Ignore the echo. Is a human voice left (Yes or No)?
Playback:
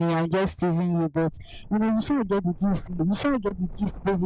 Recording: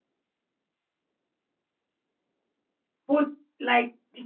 Yes